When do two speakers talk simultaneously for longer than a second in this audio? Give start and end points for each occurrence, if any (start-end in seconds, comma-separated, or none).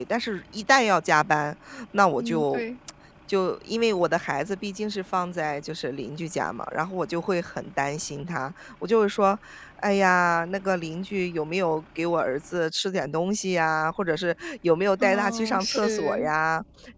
15.0-16.3